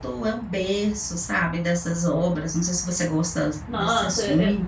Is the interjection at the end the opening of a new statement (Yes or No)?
Yes